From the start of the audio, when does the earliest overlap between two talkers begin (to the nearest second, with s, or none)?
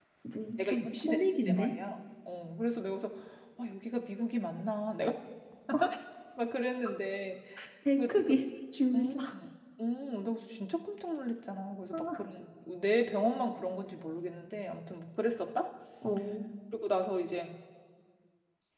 1 s